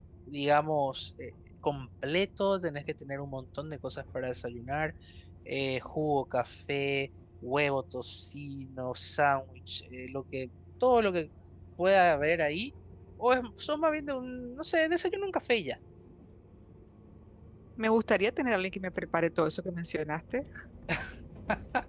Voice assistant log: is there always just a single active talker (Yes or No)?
Yes